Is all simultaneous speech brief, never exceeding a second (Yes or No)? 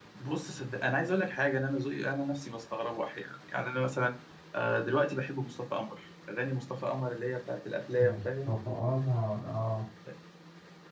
Yes